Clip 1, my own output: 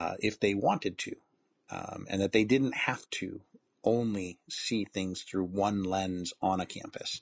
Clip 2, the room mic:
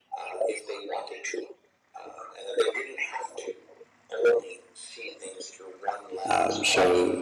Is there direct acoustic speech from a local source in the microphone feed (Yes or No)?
Yes